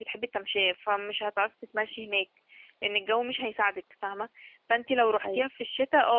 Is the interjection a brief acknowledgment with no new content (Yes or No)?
Yes